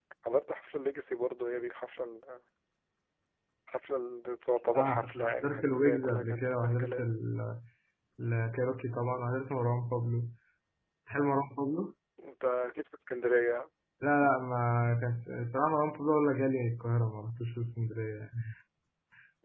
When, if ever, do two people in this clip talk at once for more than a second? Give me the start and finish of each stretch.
4.8-7.1

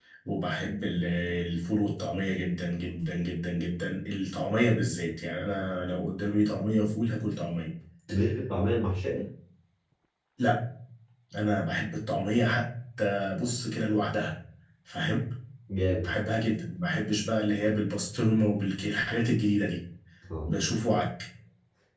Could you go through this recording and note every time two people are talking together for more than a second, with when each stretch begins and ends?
none

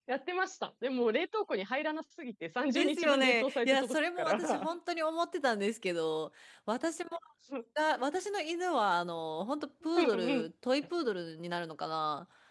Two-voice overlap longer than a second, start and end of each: 2.7-4.7

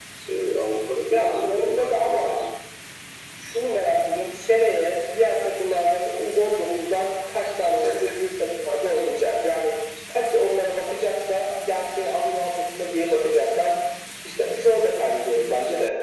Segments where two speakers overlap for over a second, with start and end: 1.1-2.4

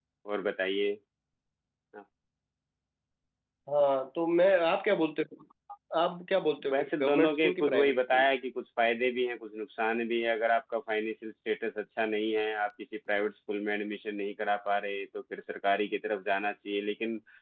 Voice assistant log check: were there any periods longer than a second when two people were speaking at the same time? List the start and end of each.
6.7-8.2

